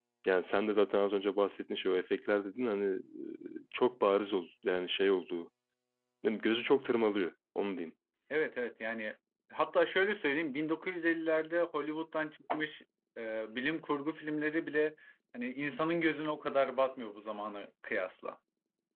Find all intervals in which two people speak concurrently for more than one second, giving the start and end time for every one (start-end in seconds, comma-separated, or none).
none